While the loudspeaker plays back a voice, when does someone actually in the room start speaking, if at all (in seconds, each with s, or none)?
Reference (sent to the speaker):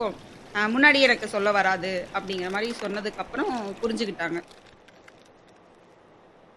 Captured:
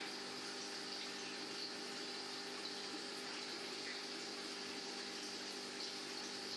none